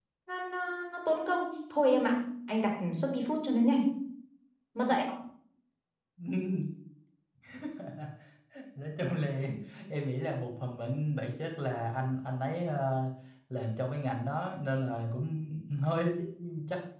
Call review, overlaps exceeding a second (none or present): none